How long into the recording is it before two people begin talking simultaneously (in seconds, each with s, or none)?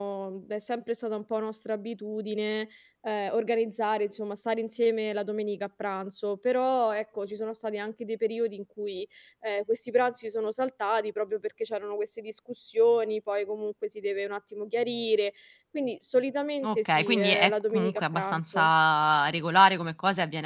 16.6 s